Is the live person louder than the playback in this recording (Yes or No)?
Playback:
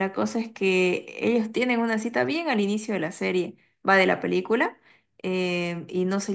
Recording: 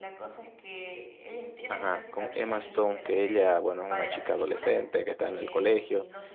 Yes